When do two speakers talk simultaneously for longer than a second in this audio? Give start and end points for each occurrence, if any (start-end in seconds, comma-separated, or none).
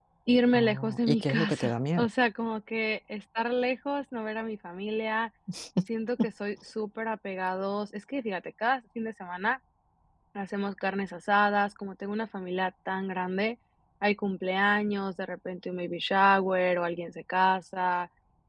0.5-2.1